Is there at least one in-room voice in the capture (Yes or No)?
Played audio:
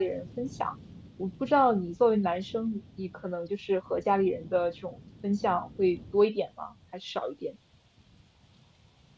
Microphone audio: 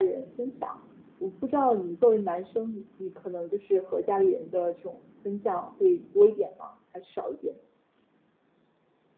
No